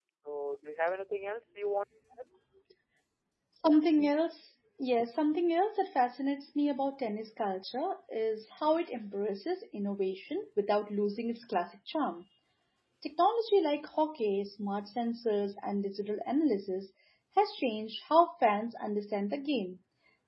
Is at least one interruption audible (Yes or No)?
No